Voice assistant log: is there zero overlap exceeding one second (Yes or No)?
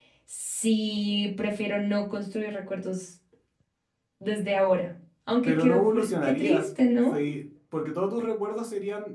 No